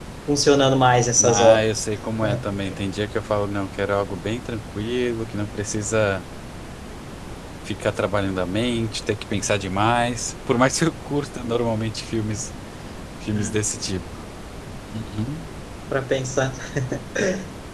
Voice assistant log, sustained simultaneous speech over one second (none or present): none